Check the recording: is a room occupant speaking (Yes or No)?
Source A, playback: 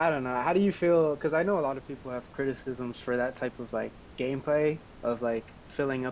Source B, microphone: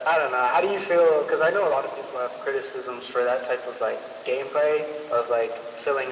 No